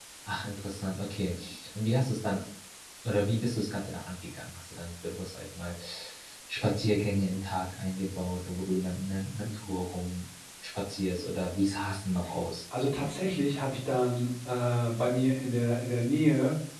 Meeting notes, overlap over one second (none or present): none